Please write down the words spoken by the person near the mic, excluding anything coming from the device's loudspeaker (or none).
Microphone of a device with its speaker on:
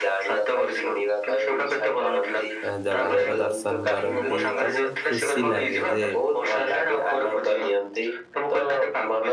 ଏ ଜଗାଙ୍କ ଦର୍ଶନ କରନ୍ତି ତ ବହୁତ ଖୁସି ଲାଗେ, ଯେ